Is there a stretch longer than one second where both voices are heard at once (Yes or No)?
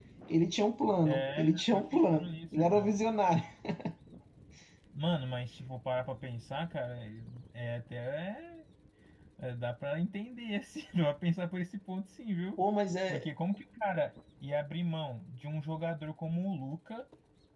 Yes